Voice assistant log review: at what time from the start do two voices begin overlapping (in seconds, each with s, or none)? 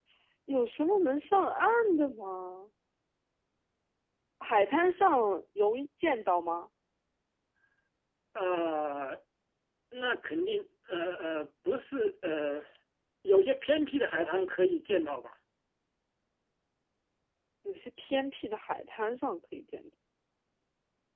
none